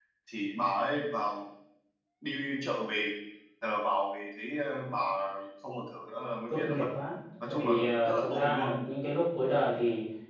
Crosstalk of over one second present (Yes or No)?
Yes